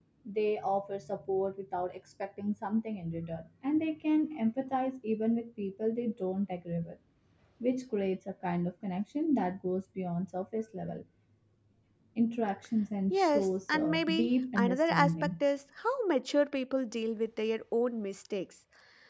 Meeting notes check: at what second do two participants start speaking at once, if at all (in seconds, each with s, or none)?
13.1 s